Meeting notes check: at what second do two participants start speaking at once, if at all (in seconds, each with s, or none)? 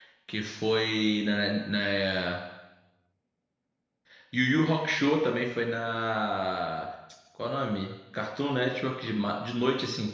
none